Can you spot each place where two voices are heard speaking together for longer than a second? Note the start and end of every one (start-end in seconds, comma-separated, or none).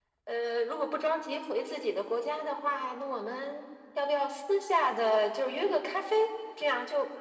none